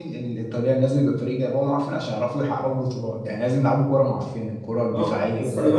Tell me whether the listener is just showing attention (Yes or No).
No